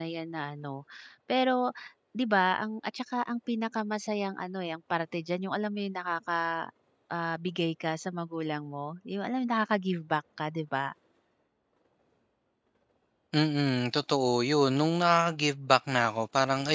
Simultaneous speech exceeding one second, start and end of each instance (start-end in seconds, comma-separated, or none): none